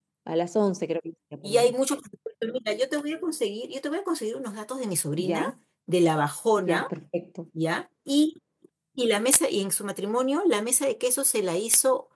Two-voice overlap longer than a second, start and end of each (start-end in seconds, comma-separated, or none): none